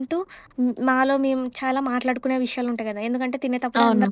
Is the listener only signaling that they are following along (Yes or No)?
Yes